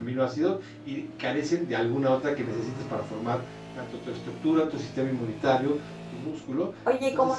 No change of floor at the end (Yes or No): No